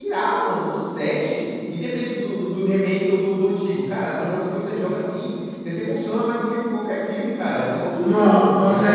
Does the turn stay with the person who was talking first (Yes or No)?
No